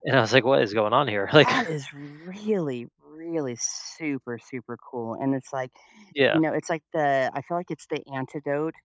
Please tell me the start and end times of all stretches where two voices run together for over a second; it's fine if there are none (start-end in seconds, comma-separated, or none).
none